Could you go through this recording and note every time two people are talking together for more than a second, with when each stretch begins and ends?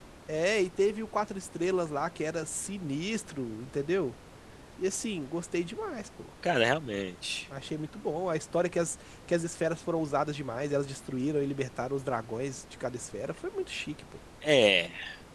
none

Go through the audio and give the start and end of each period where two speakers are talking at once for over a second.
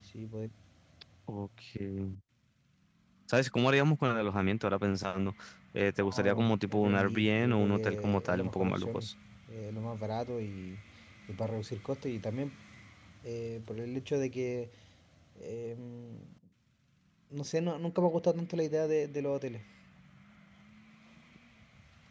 6.0-9.1

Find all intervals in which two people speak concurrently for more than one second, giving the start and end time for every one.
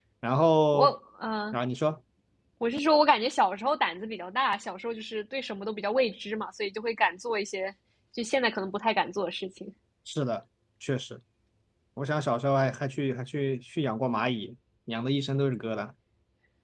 none

